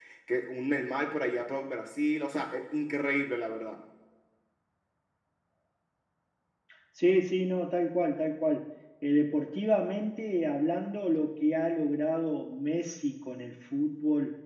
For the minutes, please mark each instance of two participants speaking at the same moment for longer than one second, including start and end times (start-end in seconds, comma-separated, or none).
none